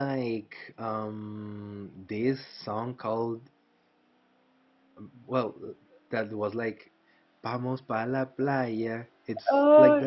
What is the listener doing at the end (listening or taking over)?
taking over